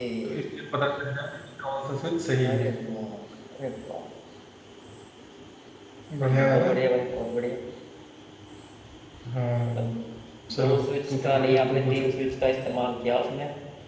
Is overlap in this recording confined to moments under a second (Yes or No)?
No